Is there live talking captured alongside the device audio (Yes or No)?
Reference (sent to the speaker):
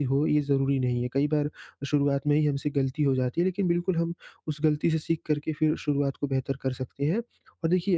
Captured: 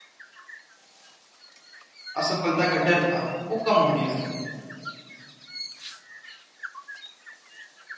Yes